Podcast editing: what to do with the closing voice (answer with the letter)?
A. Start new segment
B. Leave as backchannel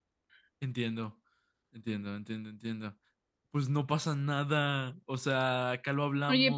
A